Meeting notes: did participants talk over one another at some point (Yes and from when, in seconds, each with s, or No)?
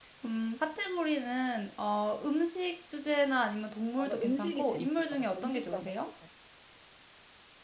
Yes, from 4.0 s